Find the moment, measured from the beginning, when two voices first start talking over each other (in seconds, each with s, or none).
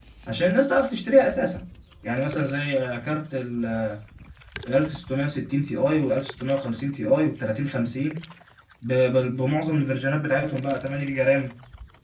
none